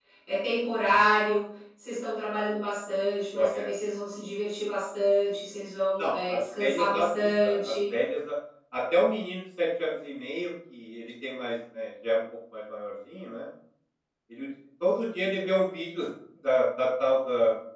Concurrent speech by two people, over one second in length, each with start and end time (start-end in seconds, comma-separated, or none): 6.0-7.7